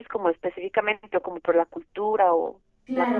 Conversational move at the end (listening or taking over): taking over